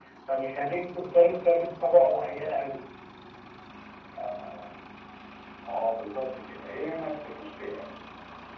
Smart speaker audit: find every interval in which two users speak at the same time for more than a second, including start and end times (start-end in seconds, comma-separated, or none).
none